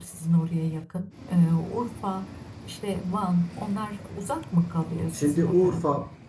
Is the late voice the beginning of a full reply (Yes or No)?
Yes